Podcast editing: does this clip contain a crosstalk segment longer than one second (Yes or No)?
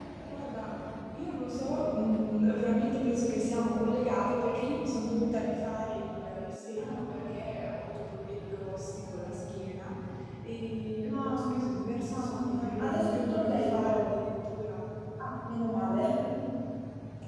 Yes